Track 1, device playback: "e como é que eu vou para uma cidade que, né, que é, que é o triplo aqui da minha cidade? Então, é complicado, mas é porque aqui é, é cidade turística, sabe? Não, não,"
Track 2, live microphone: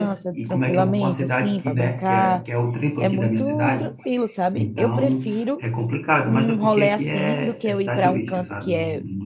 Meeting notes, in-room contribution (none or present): present